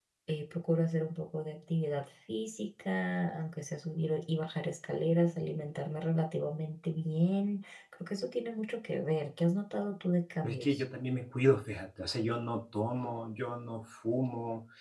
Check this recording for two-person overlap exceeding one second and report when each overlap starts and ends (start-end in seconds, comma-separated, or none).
none